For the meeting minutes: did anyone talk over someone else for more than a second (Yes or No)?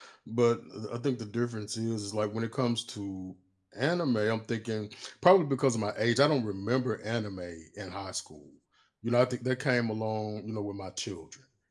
No